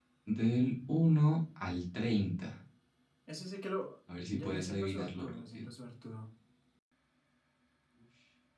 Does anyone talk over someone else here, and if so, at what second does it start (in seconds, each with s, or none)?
4.3 s